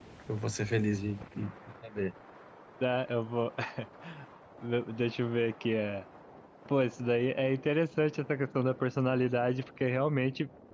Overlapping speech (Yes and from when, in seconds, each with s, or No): No